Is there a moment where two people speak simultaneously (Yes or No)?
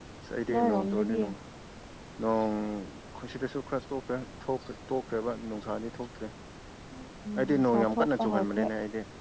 Yes